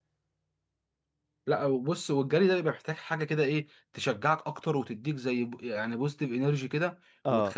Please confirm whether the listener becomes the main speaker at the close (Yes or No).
No